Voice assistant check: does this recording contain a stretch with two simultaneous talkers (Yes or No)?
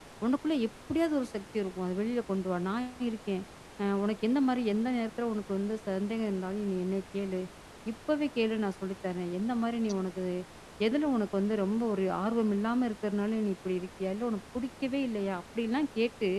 No